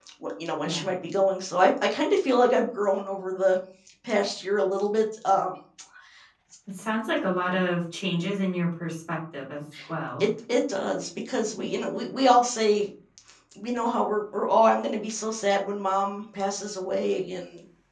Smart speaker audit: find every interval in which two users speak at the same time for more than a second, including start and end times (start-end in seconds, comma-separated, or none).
none